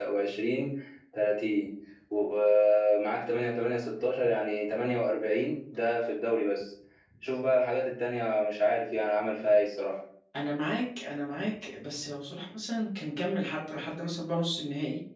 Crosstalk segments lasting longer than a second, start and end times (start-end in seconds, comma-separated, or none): none